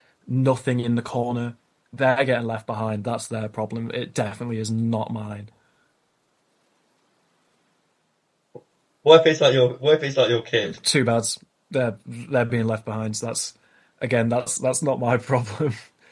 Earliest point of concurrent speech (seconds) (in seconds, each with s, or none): none